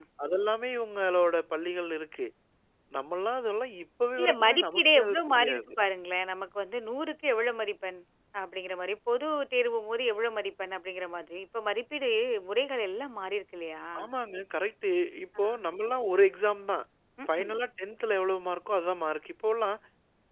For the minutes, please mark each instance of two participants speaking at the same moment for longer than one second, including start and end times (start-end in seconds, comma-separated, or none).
4.2-5.7